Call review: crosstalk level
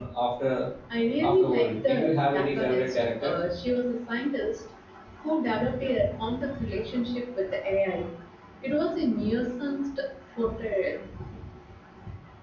present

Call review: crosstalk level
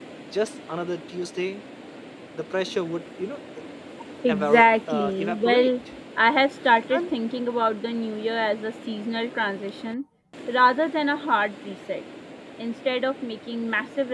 present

